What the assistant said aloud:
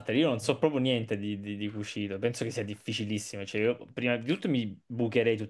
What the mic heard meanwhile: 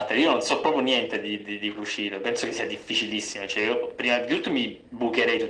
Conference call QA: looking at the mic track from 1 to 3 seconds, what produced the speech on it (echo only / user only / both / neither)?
echo only